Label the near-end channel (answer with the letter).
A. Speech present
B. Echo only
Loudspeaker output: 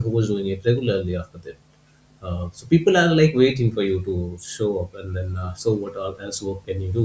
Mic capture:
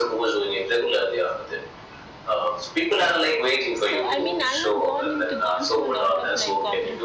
A